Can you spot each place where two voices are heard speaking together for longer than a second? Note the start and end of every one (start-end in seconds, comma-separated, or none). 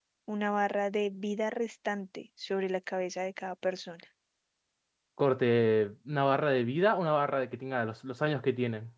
none